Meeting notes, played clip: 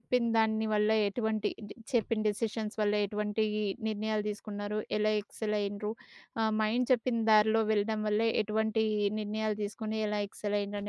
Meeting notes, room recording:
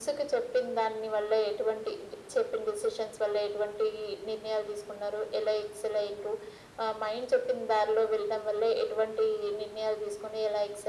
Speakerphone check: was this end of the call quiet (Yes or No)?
Yes